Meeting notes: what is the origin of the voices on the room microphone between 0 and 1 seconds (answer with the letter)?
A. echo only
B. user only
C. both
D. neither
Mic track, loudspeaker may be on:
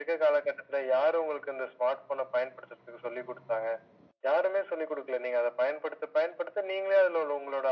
A